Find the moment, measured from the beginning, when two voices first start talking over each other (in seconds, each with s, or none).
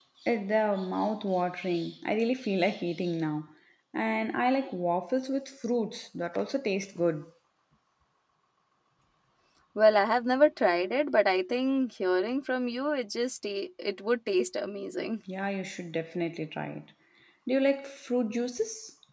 none